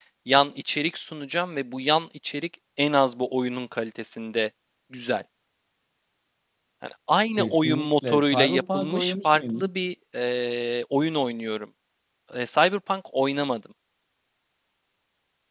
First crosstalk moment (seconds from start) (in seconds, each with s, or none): 7.4 s